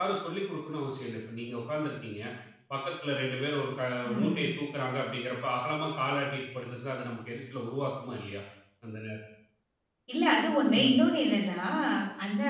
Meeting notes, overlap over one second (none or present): none